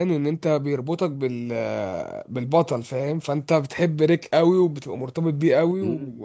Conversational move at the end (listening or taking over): taking over